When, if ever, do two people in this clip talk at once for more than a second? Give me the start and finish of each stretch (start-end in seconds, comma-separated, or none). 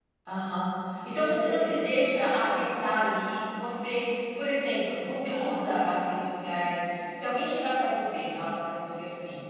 1.1-2.7